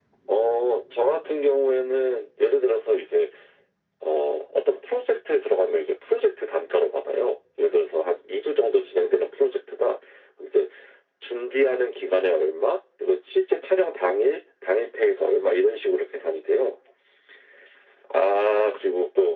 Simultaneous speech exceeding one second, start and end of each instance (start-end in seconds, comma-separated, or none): none